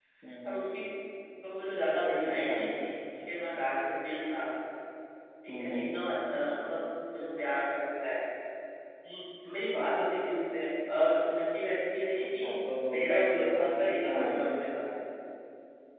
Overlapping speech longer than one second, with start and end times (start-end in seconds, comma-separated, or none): 12.9-14.4